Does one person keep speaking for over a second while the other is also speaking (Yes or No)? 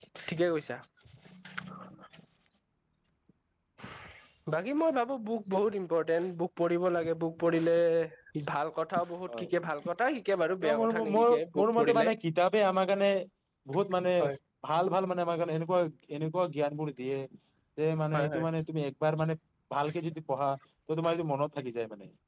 Yes